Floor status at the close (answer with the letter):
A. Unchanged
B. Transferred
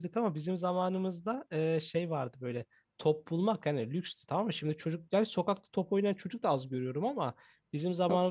A